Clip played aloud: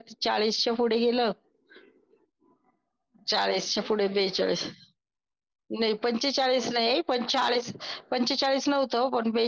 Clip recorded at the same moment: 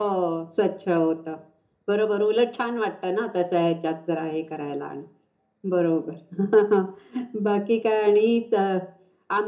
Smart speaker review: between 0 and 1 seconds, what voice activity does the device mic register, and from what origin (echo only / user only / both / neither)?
user only